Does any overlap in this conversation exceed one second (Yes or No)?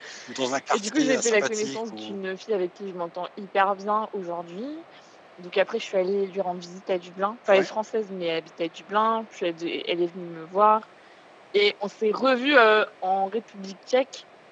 Yes